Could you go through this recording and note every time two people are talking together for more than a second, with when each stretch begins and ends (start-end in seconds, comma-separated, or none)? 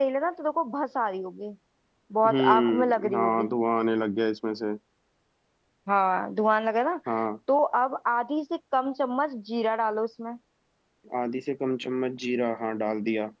2.3-3.5